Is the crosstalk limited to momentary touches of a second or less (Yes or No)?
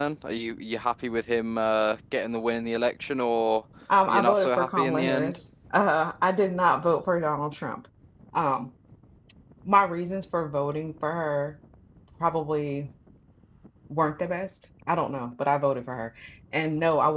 No